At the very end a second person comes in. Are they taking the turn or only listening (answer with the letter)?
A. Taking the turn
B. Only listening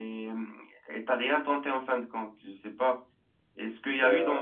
B